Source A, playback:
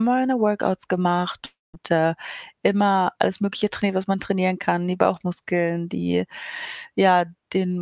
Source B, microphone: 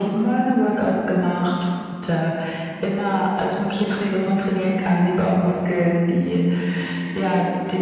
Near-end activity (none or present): none